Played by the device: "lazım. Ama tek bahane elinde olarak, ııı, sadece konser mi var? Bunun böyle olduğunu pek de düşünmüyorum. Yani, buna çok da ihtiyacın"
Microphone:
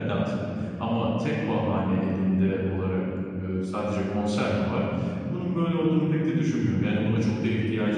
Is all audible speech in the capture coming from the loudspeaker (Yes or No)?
Yes